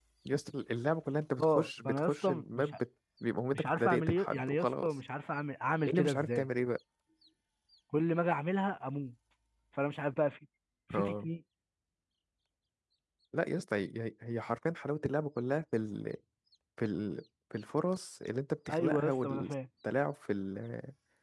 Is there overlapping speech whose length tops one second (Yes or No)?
Yes